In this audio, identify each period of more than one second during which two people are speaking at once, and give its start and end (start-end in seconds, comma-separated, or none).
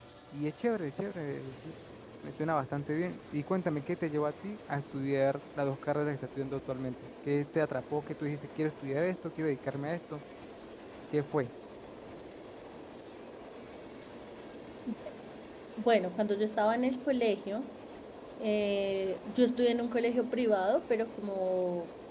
none